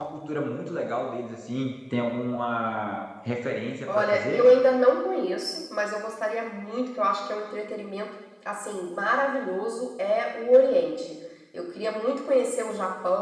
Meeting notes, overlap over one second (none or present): none